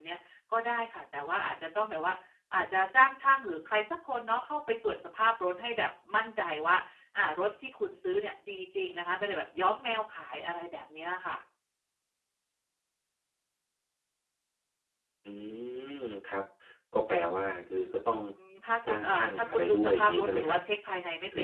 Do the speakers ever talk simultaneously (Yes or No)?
Yes